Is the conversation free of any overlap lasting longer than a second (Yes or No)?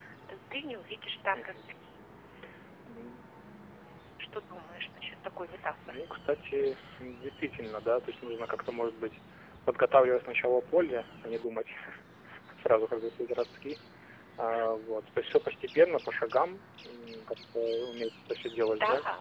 Yes